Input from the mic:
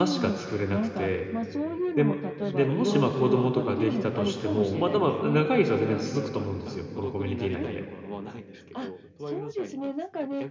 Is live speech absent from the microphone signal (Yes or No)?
No